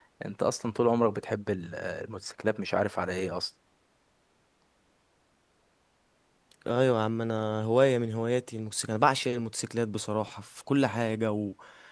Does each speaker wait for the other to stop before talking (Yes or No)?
Yes